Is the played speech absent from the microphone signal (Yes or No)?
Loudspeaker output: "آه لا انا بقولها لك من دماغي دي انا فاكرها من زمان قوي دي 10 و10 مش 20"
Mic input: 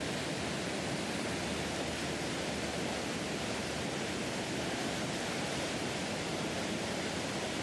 Yes